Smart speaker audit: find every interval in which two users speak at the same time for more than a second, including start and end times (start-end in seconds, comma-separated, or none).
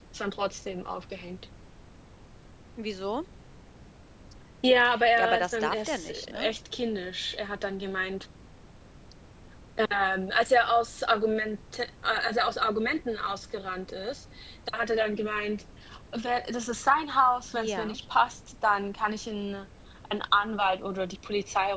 5.2-6.5